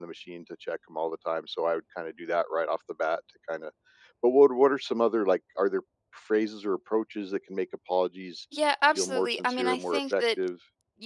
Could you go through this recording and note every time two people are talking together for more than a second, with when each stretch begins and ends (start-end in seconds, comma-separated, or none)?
8.9-10.2